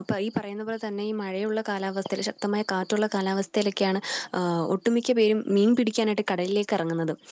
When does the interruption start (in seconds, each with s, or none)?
none